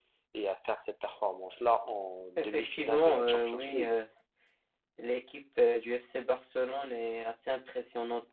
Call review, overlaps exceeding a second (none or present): present